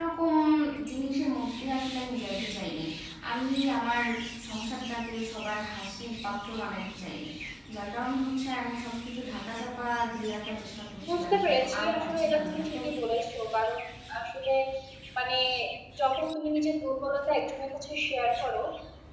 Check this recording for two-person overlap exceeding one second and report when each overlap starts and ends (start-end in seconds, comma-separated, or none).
11.1-12.8